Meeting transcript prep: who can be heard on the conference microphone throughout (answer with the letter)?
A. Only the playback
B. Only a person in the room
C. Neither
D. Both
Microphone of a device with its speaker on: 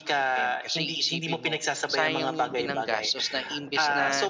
D